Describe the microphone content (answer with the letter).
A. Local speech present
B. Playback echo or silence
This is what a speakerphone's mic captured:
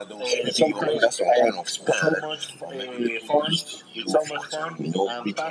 B